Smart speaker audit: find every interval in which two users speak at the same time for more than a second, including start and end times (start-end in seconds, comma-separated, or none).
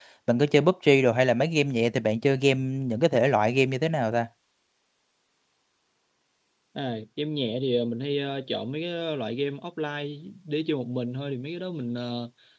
none